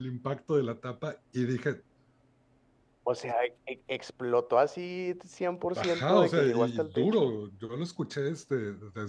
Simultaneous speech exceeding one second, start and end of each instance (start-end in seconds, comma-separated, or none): 5.8-7.3